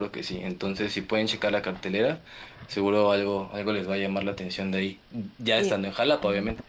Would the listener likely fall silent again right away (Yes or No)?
No